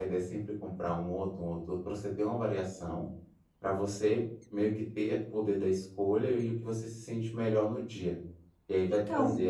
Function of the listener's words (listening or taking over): listening